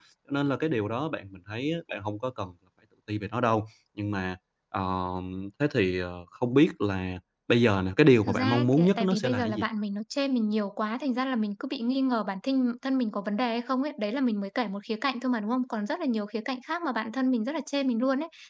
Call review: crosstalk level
present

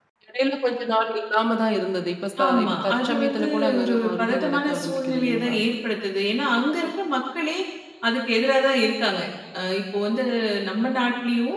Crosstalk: present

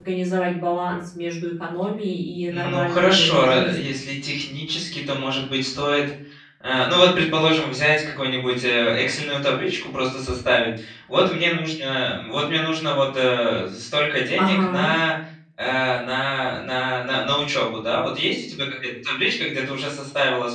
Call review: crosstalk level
present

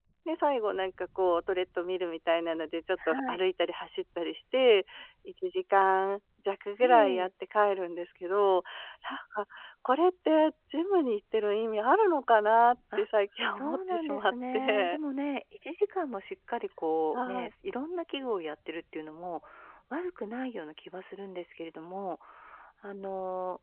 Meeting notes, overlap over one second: present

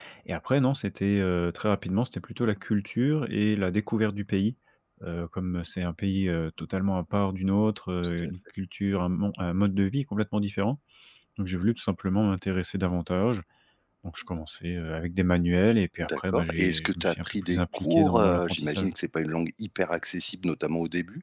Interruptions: present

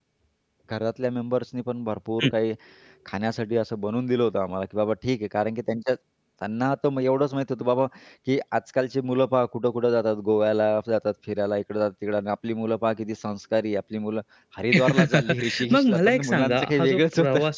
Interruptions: present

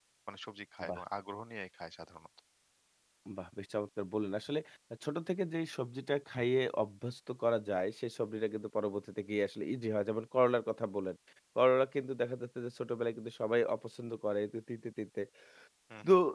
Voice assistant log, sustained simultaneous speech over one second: none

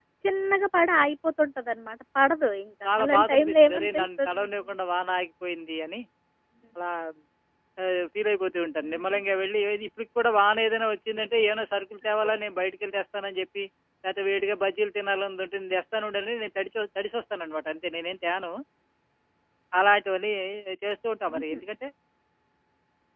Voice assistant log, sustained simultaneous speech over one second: present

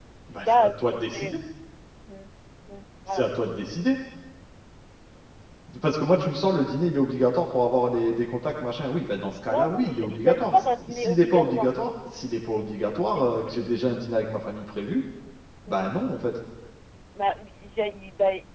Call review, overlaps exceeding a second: present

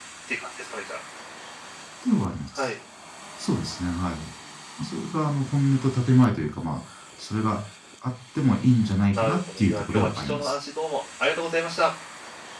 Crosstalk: present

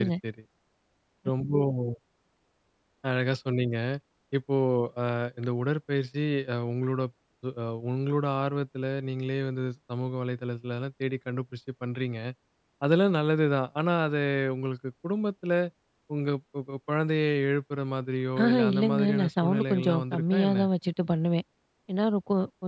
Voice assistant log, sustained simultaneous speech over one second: present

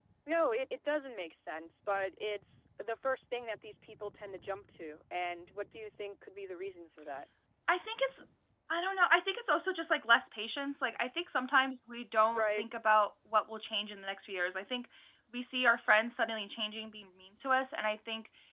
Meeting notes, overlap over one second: none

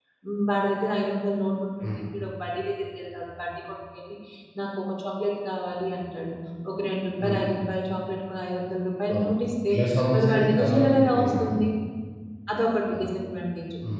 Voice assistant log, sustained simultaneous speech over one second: present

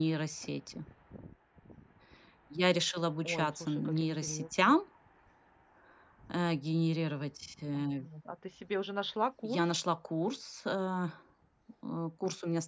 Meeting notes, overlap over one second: present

